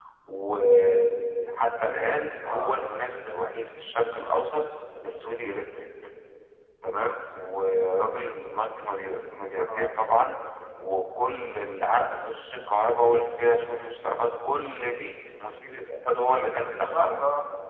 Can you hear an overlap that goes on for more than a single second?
No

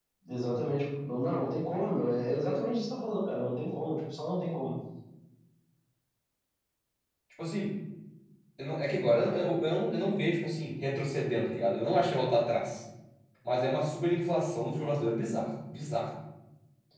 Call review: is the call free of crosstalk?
Yes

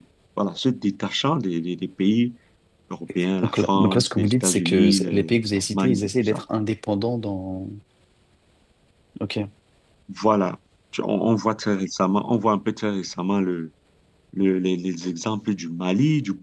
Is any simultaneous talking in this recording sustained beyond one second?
Yes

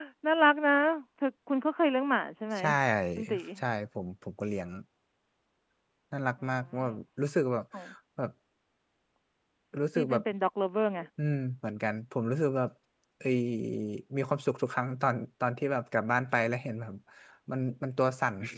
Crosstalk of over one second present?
No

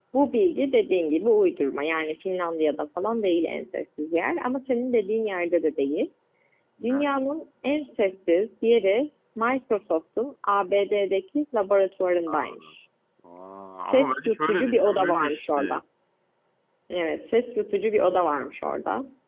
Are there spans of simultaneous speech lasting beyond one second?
Yes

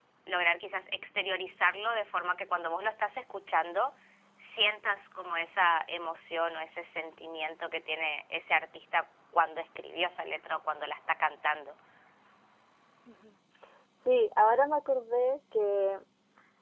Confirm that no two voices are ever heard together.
Yes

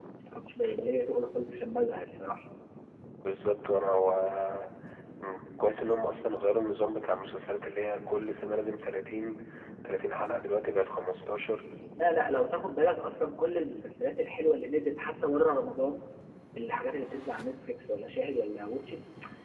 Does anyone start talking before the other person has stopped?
No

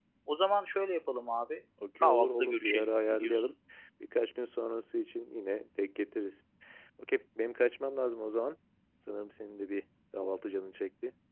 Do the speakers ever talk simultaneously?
Yes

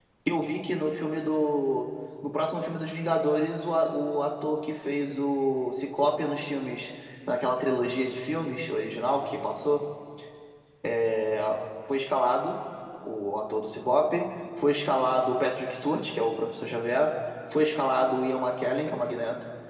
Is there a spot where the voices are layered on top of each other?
No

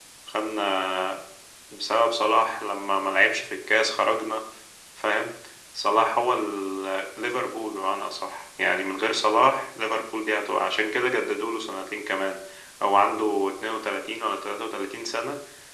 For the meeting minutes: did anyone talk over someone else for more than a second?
No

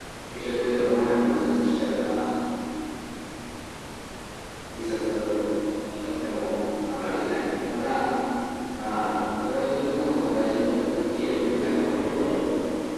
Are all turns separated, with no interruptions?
No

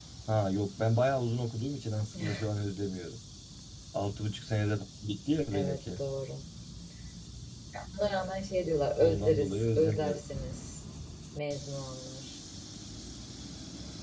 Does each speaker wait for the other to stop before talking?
No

